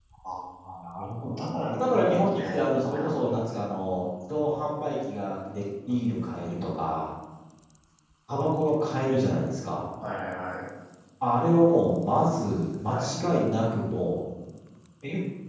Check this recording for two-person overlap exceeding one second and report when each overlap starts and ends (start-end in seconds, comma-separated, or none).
1.8-3.6